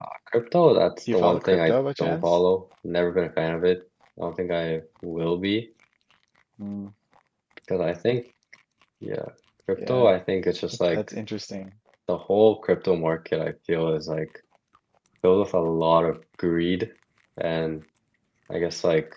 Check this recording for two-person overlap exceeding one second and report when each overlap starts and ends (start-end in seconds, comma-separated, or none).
1.1-2.4